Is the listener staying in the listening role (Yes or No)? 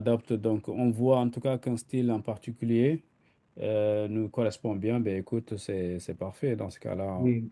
No